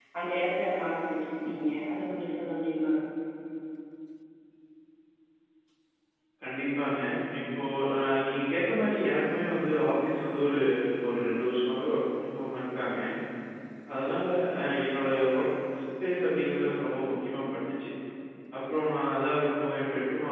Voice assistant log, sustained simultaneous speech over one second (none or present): none